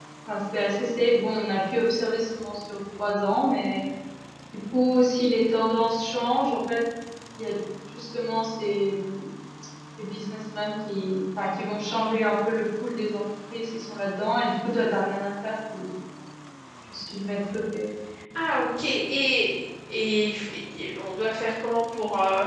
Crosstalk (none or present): none